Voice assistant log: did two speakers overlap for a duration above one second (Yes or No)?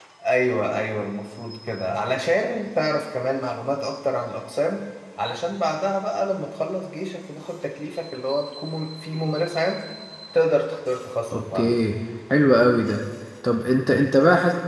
No